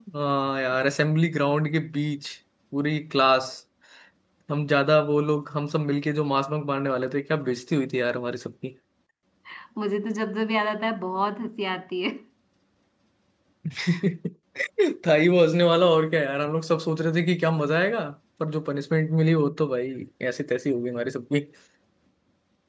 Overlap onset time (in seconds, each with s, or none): none